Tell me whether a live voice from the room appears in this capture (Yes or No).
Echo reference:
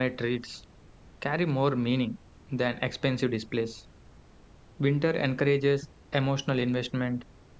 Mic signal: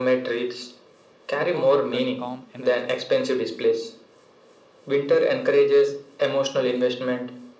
Yes